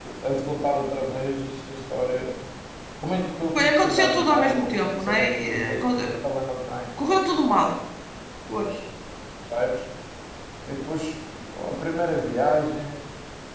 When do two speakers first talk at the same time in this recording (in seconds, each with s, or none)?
3.5 s